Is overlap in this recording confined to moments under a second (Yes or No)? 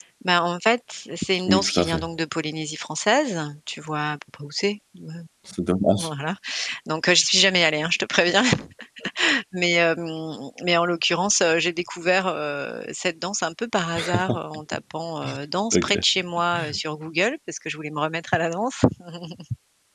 Yes